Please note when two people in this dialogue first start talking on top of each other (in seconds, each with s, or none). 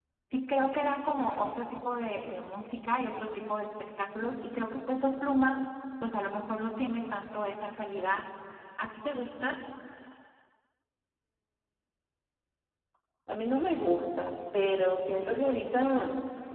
none